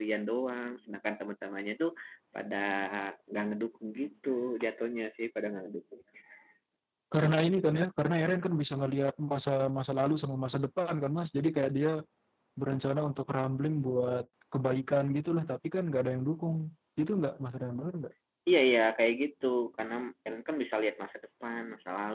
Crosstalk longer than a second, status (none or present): none